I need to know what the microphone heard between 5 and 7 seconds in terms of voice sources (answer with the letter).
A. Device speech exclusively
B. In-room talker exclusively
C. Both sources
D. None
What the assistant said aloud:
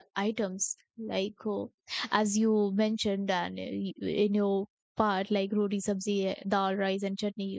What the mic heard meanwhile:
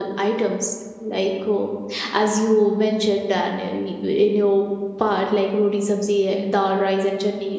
A